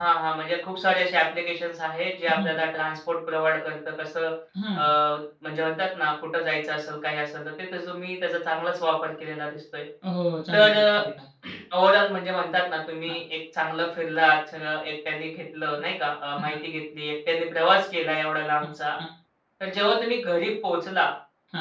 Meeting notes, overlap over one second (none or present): none